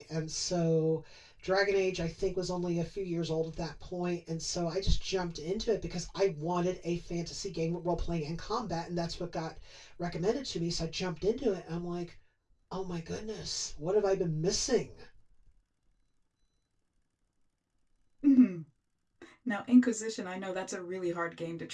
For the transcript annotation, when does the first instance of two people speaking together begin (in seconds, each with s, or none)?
none